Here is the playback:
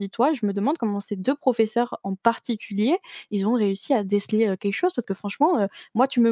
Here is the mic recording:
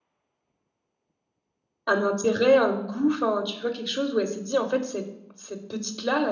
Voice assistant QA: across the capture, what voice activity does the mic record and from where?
user only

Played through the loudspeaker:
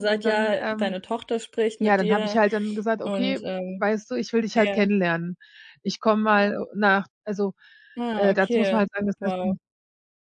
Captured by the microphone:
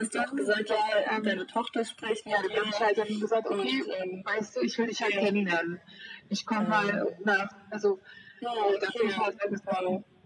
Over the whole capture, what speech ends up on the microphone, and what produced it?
both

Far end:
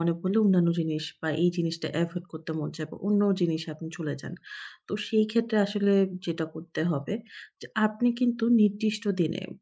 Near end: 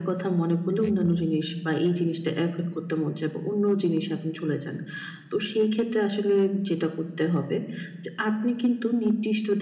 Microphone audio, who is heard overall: both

